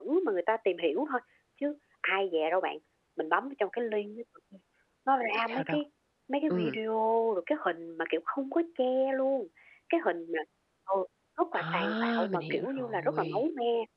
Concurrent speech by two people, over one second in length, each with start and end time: 11.5-13.4

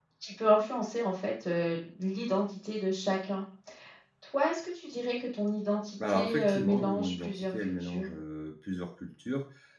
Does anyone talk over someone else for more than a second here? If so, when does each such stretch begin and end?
6.1-8.1

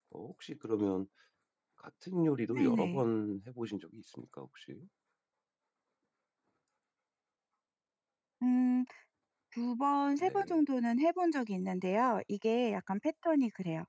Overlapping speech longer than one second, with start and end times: none

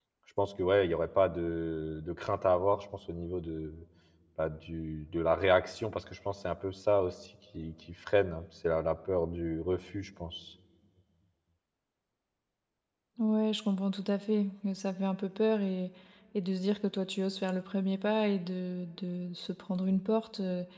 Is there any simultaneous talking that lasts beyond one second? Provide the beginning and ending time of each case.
none

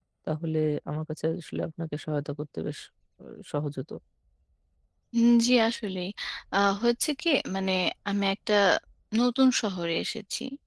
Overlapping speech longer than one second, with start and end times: none

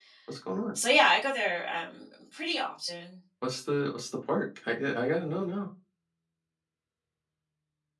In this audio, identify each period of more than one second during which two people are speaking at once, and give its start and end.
none

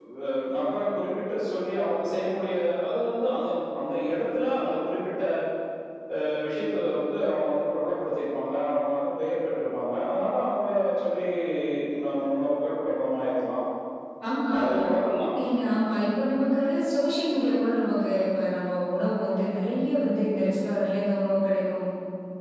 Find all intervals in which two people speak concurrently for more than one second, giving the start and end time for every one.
none

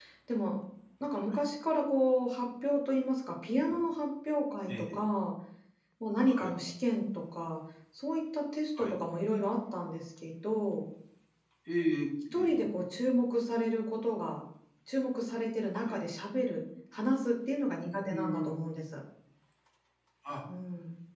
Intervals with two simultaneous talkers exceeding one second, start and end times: none

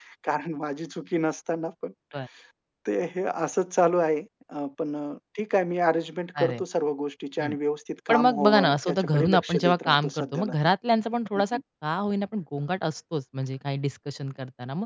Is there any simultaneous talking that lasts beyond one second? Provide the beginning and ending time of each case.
8.1-10.6

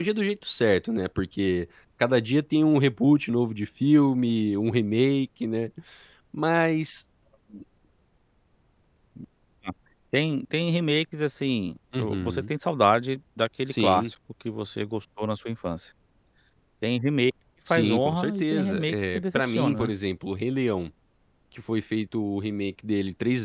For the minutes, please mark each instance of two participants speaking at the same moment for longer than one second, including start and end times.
17.7-19.9

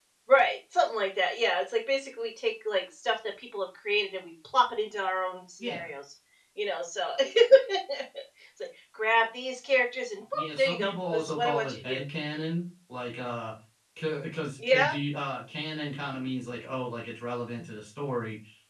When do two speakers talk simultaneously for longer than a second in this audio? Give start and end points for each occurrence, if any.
10.3-12.0

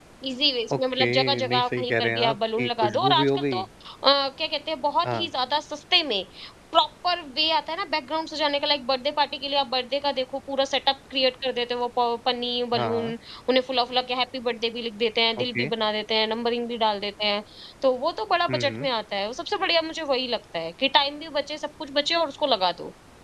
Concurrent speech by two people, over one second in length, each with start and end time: 0.7-3.6

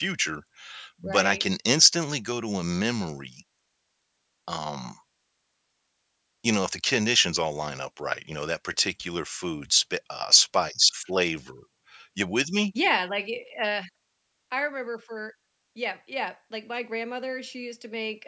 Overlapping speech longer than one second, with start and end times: none

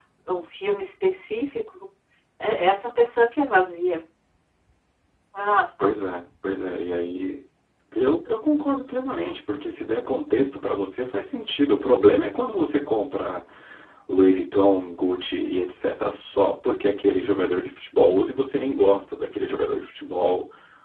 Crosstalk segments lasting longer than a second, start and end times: none

